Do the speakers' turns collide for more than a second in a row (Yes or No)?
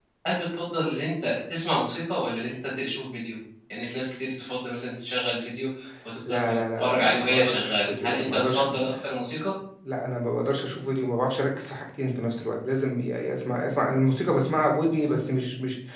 Yes